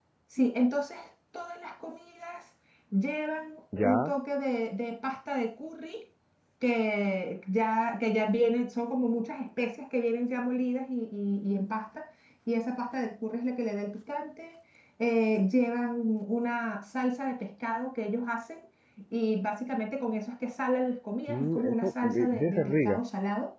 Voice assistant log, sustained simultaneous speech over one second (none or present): present